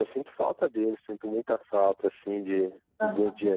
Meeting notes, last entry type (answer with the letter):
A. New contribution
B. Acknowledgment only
B